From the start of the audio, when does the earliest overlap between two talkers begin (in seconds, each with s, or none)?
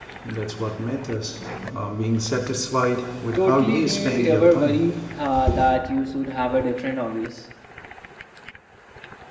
3.4 s